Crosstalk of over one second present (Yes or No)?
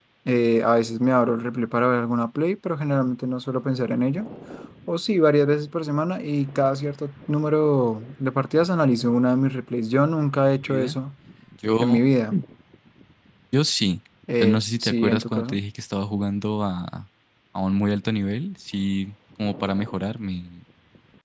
Yes